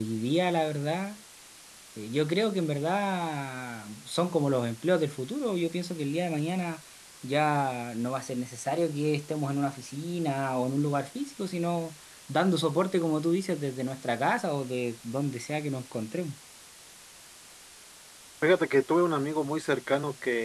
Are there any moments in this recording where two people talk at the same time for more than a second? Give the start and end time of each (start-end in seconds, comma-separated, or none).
none